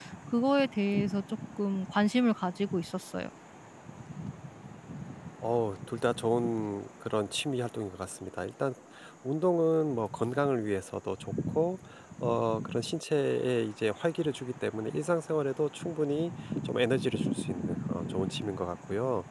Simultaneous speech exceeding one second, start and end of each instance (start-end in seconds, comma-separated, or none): none